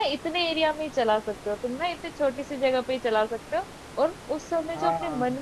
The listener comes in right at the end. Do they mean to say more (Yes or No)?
No